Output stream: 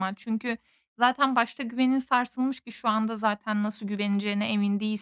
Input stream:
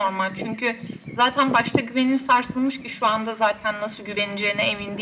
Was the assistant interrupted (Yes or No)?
No